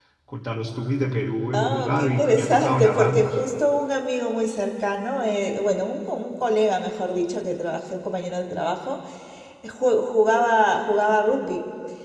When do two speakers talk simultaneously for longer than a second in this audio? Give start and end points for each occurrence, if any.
1.6-3.3

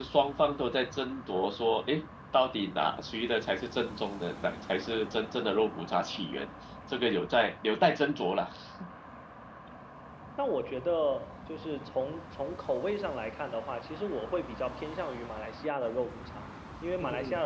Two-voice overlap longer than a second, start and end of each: none

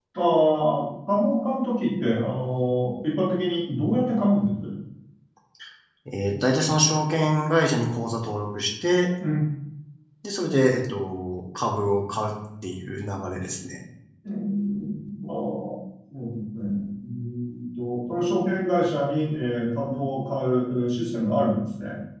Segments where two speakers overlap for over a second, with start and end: none

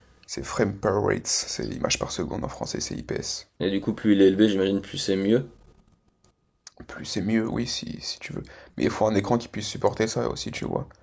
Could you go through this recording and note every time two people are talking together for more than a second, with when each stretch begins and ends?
none

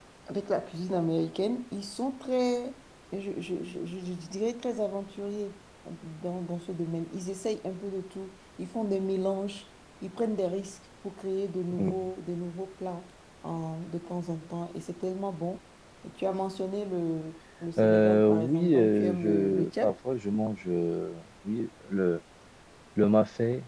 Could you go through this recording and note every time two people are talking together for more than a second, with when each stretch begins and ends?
17.8-19.9

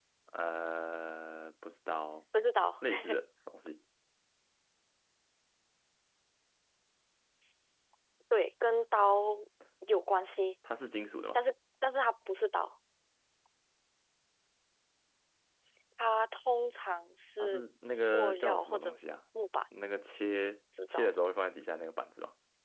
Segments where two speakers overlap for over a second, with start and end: 17.4-19.0

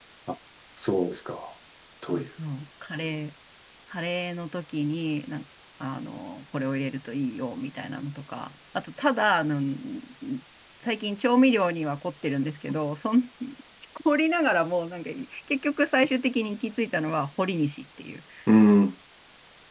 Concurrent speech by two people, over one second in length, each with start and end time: none

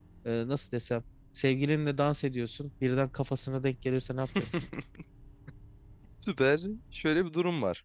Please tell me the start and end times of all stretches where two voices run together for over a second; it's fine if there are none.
none

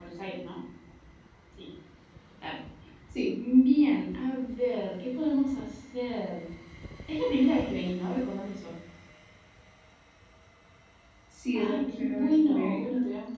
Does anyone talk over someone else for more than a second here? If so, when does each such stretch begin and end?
11.5-12.8

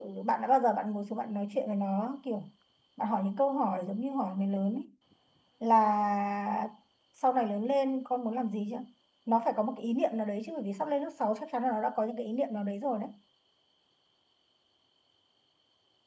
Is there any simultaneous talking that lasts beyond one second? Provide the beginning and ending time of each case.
none

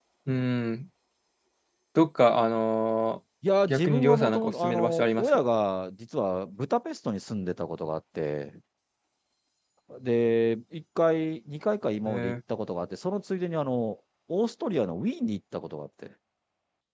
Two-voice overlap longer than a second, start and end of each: 3.7-5.4

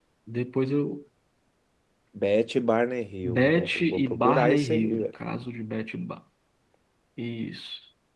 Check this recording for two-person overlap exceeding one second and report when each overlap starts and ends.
3.2-5.1

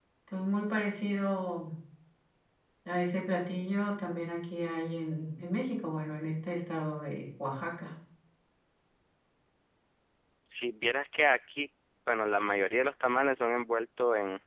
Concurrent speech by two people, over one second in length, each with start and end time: none

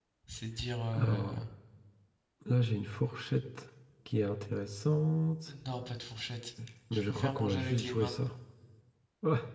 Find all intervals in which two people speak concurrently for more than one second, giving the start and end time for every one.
6.9-8.1

